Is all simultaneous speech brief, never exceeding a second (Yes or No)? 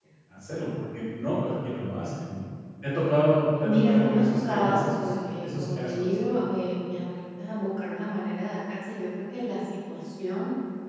No